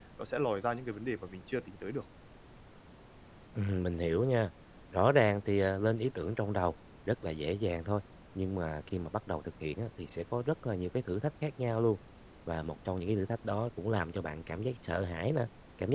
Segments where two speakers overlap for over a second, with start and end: none

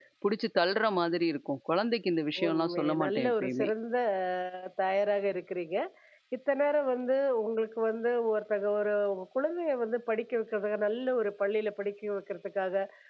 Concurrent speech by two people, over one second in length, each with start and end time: 2.5-3.7

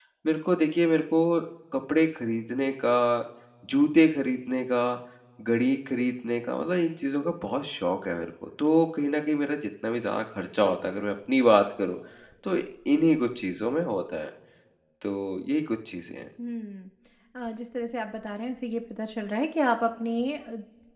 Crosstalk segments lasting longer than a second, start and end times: none

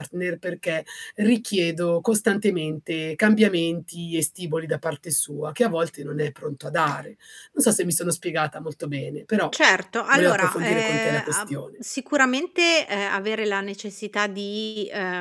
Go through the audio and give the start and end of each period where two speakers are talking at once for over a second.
10.1-11.6

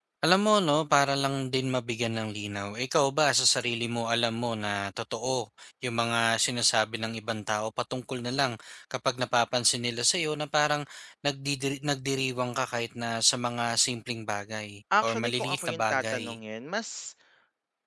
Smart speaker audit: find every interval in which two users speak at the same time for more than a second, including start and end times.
15.0-16.2

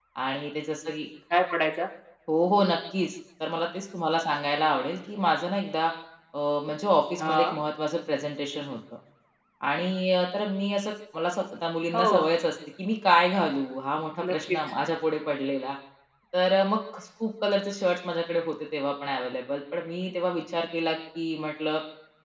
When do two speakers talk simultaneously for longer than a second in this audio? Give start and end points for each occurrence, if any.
none

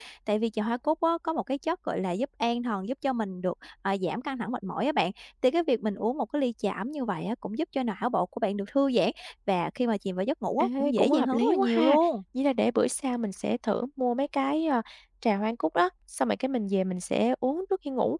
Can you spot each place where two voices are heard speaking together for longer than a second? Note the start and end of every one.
10.6-12.0

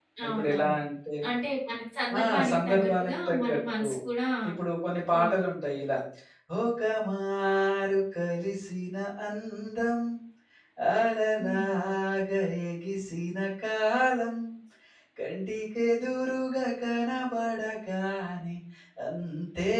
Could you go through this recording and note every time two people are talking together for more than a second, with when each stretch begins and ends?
2.2-3.9

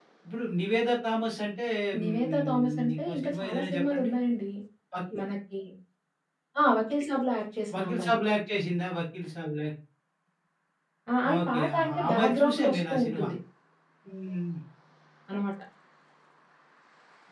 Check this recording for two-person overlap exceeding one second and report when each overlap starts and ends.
2.0-4.1, 11.3-13.3

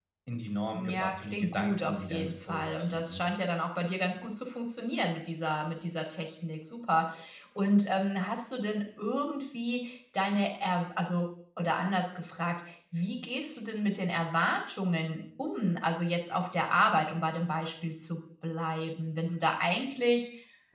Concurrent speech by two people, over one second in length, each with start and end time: 0.7-3.2

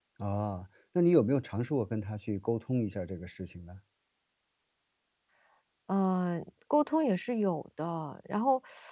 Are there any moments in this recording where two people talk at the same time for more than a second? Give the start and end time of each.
none

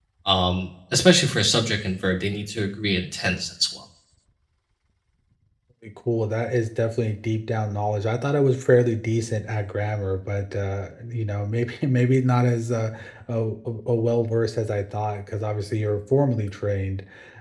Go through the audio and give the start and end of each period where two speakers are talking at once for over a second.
none

